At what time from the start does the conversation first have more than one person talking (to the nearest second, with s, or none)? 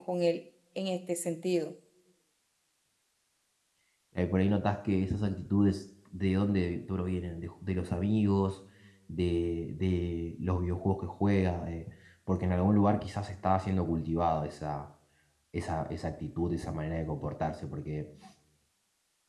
none